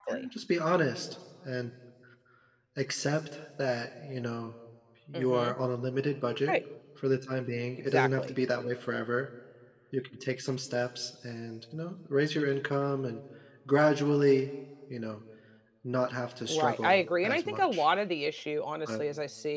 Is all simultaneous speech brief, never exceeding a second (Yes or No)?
No